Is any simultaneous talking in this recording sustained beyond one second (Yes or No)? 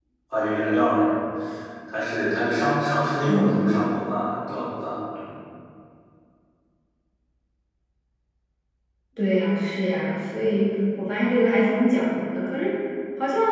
No